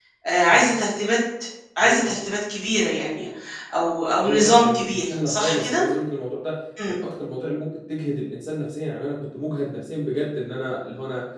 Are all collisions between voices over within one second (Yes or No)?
No